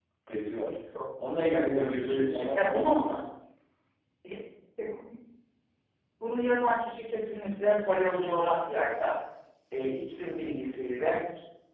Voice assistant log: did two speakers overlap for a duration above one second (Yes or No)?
Yes